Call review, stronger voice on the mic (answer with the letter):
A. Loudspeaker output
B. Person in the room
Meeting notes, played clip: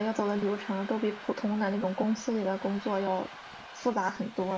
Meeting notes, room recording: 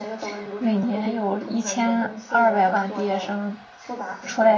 B